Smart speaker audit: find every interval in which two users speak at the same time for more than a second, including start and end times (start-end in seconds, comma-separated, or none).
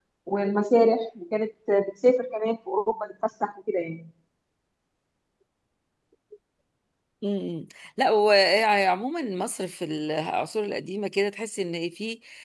none